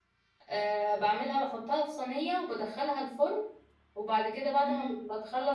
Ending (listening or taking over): listening